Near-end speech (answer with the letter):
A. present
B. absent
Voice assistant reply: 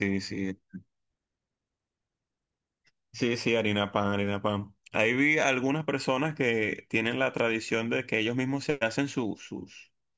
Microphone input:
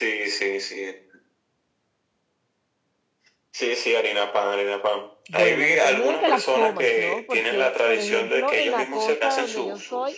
A